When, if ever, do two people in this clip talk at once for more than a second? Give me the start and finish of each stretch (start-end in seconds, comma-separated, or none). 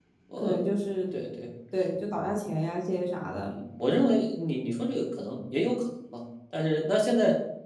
none